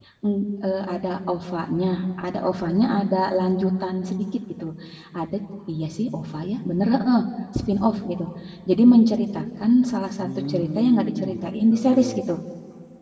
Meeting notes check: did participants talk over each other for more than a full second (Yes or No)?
Yes